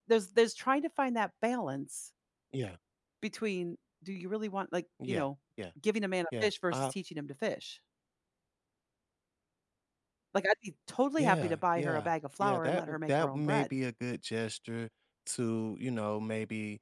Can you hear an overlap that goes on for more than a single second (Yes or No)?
Yes